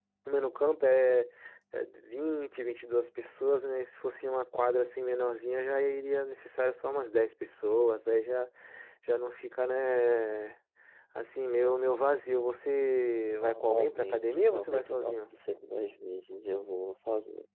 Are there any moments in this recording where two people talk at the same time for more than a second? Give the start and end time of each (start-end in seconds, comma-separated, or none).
13.4-15.1